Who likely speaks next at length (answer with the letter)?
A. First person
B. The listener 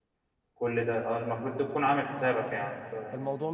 B